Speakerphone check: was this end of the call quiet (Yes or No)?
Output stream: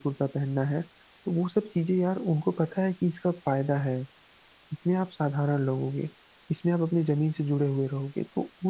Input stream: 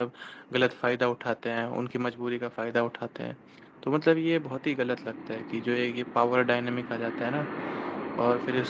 No